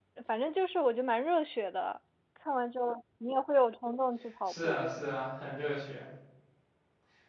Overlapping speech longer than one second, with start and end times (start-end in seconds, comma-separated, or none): none